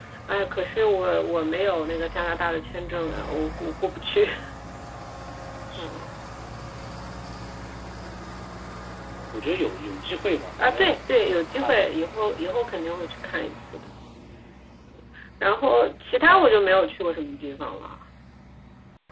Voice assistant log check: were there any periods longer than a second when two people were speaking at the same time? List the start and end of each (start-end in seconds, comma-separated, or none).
none